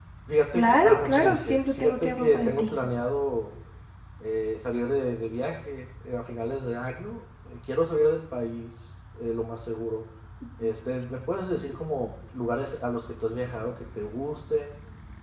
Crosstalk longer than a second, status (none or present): present